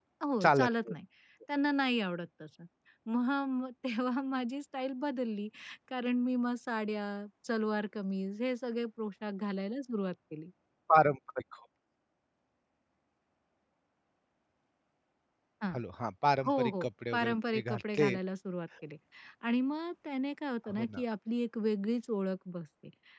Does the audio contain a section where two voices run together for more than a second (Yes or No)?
Yes